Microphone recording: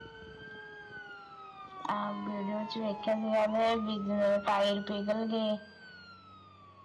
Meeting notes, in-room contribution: none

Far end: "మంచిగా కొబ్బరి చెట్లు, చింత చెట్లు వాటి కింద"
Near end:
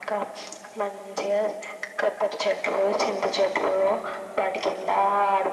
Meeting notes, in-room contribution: none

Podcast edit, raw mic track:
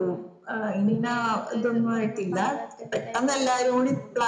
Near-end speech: present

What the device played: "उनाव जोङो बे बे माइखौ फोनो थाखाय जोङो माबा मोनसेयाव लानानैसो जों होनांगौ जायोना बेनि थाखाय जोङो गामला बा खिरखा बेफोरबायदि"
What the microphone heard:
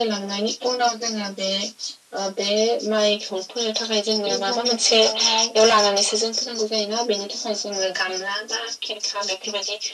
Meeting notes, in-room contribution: present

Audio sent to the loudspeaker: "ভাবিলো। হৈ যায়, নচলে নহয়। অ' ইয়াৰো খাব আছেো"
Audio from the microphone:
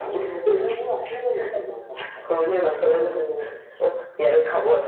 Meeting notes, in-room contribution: present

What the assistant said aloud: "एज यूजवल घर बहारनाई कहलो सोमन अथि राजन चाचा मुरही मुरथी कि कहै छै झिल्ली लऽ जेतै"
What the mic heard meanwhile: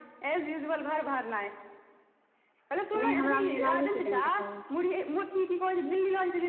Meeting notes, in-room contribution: present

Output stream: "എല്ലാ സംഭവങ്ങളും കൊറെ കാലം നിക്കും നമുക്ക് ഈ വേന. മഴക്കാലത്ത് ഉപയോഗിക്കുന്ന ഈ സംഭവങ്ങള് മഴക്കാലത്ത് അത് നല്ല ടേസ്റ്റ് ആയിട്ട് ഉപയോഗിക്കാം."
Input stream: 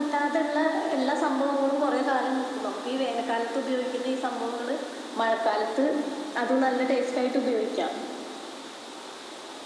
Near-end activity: none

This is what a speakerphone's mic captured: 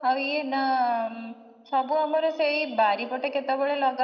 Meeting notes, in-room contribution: none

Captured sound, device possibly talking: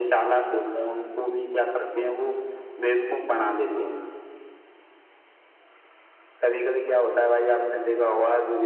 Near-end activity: none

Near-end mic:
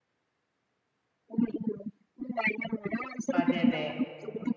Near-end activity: present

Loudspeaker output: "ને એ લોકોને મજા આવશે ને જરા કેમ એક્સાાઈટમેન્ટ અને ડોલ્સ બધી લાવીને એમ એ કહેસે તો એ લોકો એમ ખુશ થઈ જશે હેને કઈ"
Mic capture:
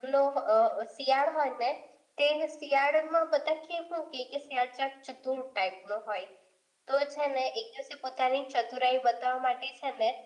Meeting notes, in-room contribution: present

